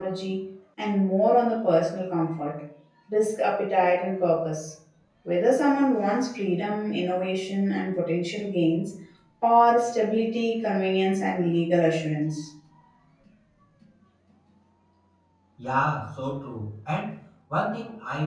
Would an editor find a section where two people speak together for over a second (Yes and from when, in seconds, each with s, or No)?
No